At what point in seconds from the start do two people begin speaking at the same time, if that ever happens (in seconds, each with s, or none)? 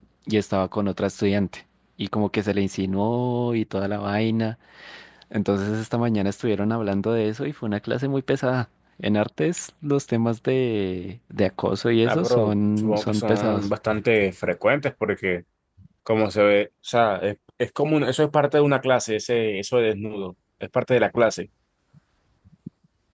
12.1 s